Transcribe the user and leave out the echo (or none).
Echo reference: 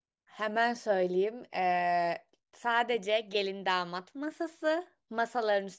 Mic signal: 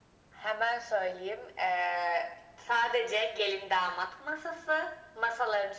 none